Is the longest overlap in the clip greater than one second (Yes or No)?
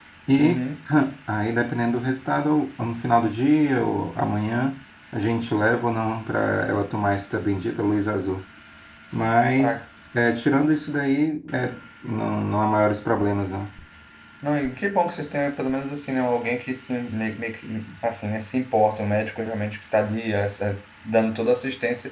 No